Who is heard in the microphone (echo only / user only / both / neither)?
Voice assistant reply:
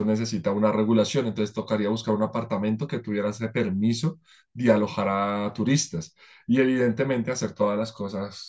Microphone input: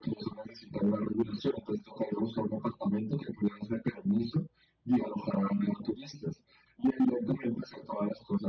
echo only